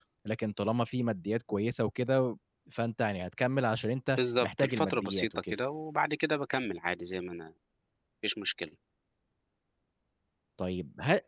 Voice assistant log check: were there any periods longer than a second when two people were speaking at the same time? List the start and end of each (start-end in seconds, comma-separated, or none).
4.2-5.5